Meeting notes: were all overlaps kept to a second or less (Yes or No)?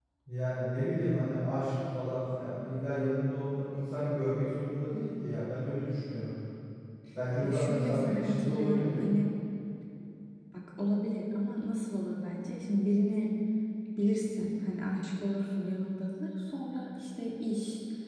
No